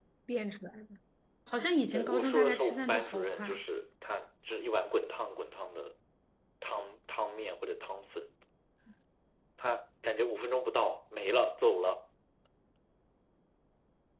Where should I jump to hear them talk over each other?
2 s

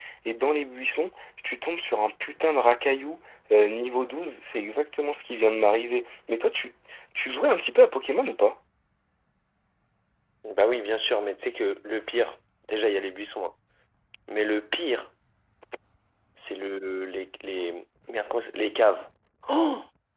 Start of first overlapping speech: none

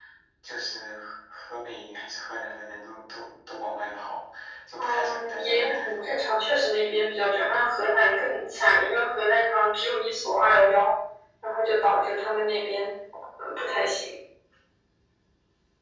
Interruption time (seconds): 5 s

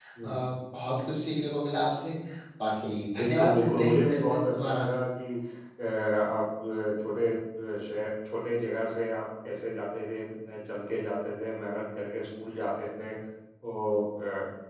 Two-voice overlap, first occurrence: 3 s

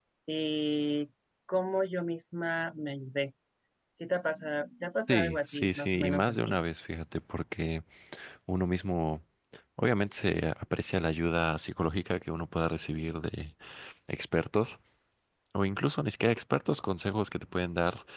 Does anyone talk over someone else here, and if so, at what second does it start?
5 s

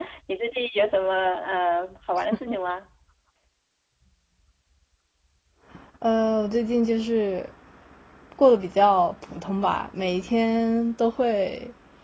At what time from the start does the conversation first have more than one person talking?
none

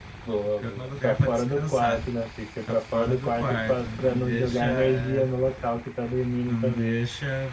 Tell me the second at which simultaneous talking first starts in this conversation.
1 s

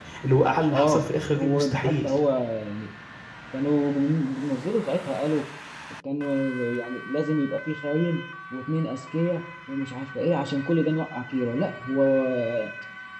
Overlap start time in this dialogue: 1 s

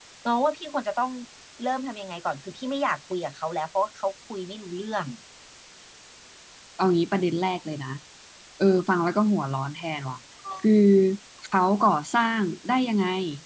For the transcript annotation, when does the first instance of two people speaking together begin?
none

